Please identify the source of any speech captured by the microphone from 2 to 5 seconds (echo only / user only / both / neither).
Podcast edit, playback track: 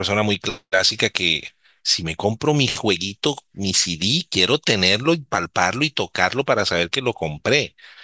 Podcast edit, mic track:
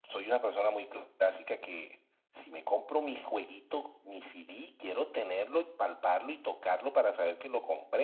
echo only